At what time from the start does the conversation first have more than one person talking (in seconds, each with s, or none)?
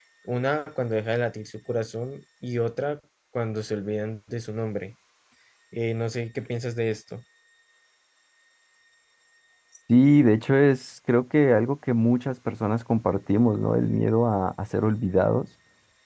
none